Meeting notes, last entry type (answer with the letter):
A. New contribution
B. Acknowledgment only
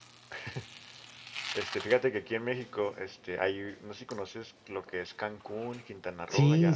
B